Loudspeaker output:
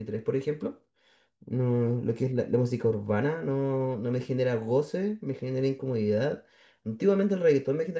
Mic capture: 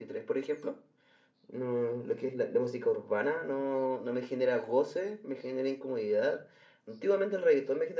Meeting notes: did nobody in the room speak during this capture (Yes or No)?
Yes